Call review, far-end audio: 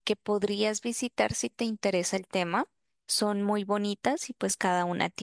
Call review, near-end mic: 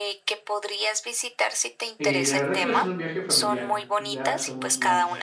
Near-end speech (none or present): present